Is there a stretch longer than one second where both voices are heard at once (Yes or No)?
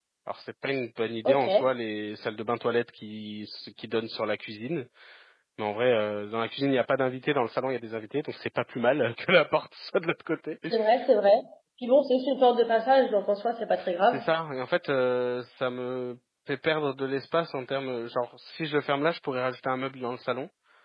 No